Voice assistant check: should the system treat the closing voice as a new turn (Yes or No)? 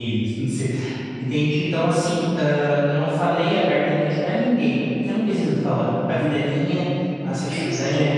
No